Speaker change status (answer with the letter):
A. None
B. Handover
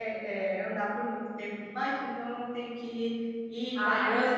B